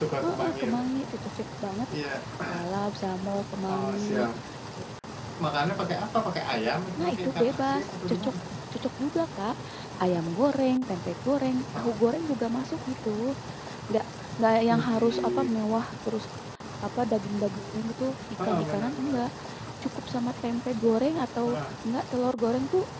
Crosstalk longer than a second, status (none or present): present